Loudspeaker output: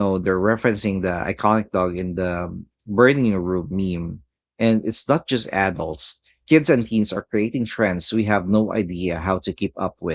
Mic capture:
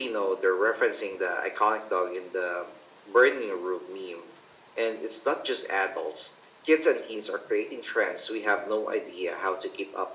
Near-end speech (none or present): none